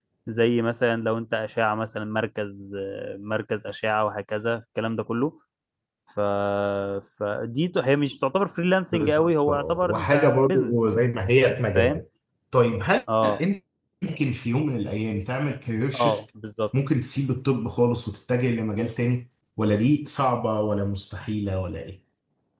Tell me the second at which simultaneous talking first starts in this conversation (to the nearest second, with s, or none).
9 s